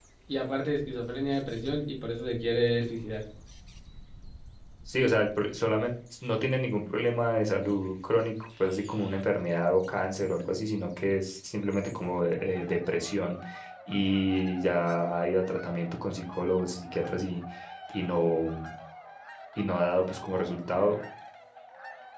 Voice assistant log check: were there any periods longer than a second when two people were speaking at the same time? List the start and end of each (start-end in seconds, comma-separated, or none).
none